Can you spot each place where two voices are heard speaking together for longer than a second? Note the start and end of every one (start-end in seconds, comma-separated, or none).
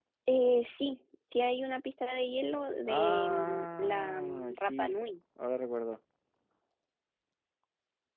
2.9-5.0